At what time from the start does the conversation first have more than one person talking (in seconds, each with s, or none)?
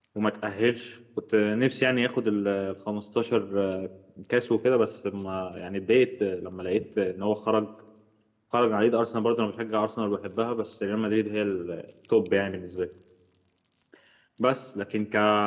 none